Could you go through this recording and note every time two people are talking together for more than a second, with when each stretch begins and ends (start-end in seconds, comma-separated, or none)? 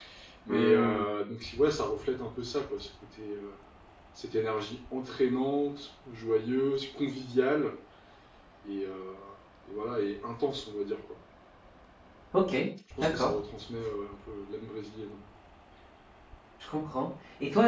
none